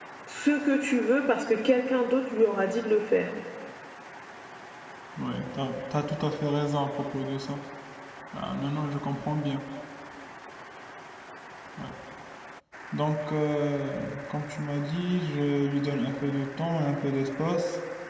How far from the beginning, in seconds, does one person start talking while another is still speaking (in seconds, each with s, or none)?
none